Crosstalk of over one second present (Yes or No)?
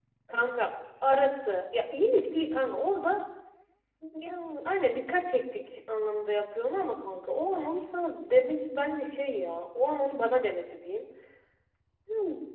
No